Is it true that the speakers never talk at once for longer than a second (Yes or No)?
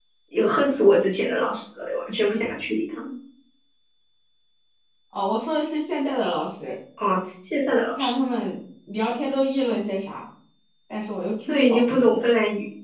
Yes